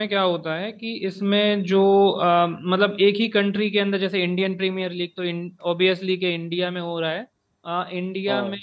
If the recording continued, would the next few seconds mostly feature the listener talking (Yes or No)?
No